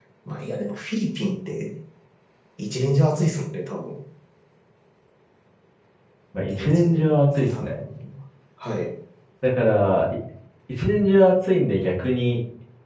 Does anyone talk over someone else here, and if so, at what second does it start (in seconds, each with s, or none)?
6.5 s